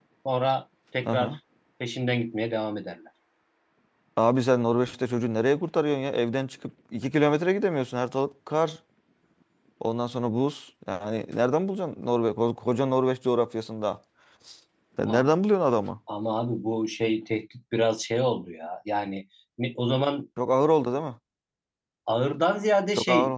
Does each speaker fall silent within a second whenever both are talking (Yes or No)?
Yes